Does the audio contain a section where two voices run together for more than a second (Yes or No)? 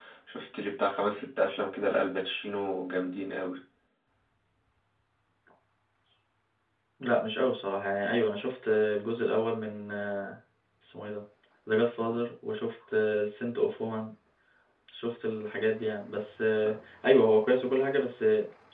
No